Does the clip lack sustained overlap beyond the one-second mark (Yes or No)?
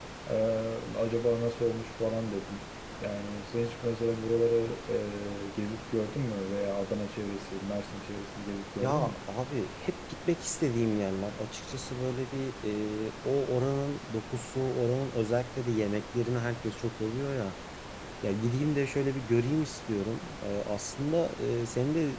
Yes